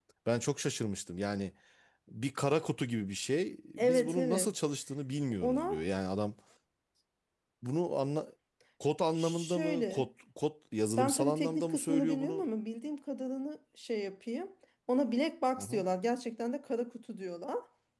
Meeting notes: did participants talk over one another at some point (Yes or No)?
Yes